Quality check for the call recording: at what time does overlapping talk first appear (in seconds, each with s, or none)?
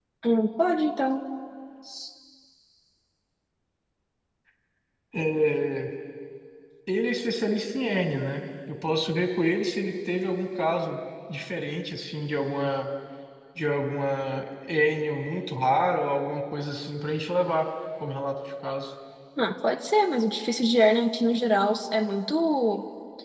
none